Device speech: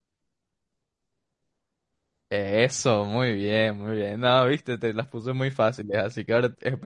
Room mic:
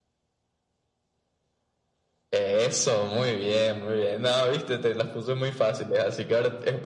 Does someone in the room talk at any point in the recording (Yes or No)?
No